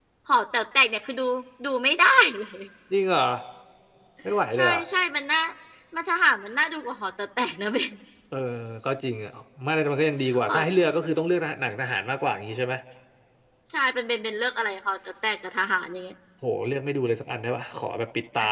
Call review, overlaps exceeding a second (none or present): none